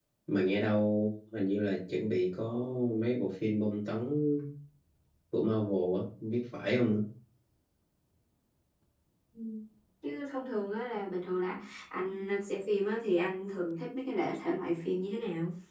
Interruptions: none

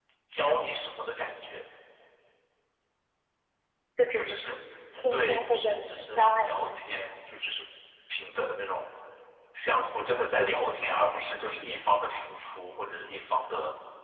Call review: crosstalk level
present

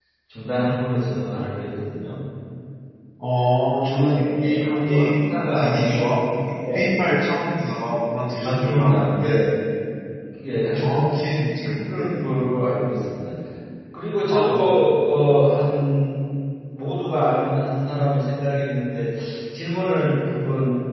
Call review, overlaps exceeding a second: present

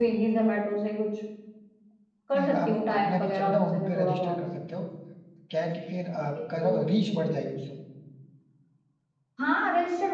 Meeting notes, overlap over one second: present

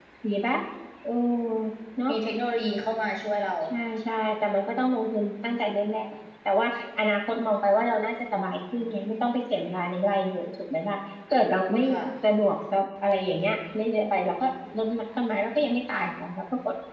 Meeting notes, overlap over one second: none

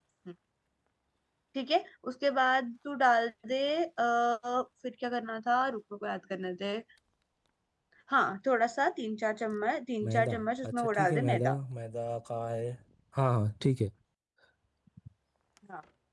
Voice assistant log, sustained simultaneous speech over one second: present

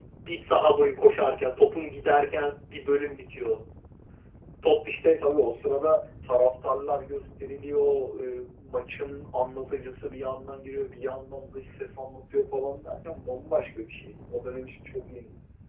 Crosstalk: none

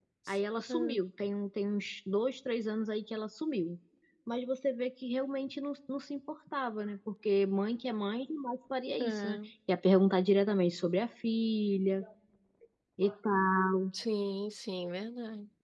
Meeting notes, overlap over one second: none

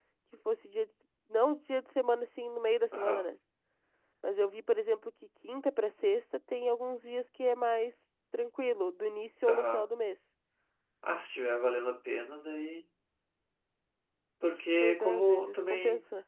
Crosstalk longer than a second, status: present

